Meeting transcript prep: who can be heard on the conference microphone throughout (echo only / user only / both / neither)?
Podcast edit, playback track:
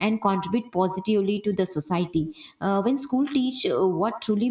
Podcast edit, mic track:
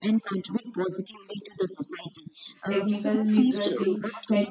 both